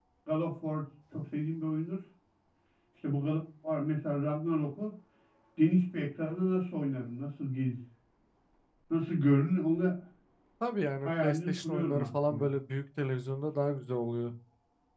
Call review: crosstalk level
present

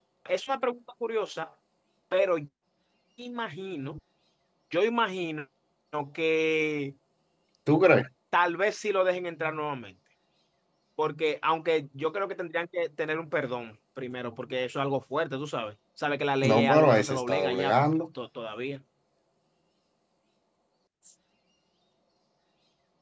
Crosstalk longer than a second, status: present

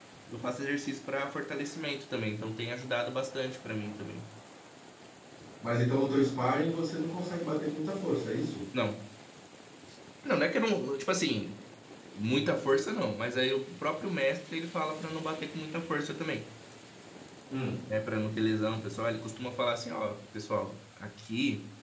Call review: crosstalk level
none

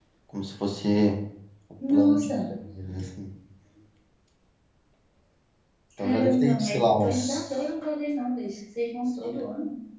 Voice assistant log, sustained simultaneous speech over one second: present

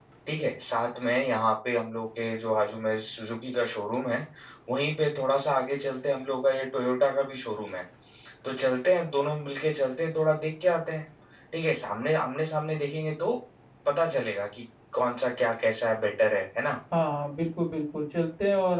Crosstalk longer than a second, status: none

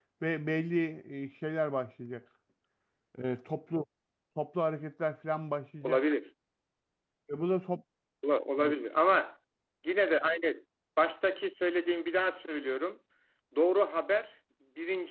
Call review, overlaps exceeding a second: none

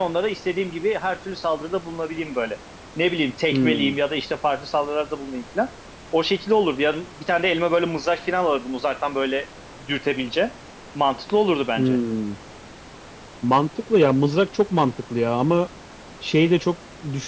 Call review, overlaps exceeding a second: none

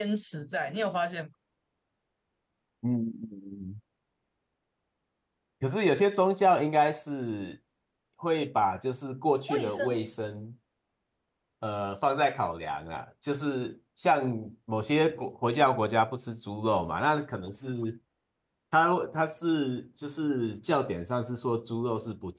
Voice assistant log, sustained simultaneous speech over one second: none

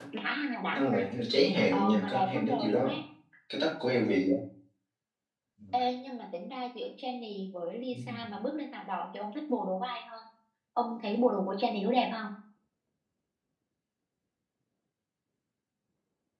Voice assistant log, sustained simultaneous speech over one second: present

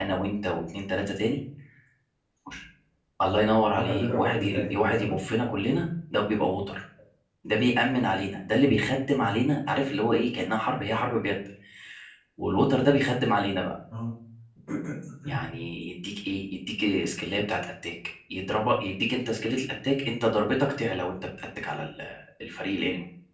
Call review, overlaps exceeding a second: present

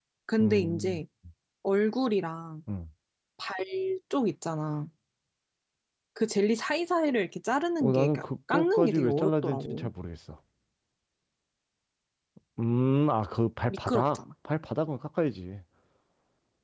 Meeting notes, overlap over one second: present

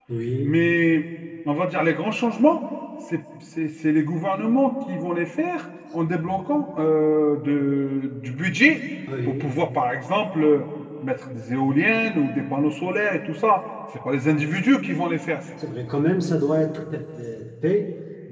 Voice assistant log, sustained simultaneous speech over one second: none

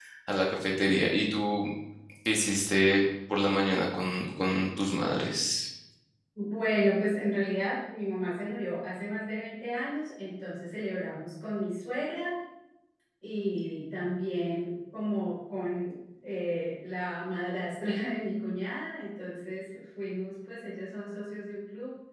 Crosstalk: none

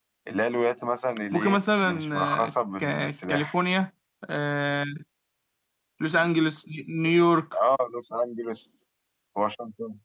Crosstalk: present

